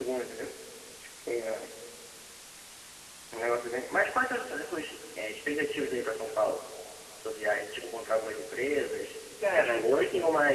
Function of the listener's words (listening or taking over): listening